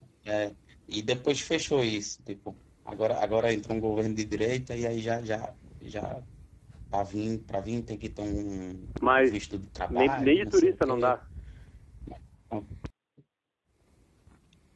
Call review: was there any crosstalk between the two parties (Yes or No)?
Yes